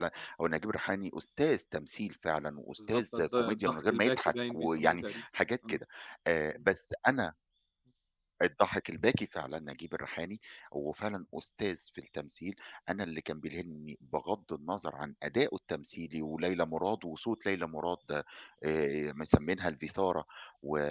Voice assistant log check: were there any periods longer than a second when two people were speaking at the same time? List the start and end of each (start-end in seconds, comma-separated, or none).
2.8-5.2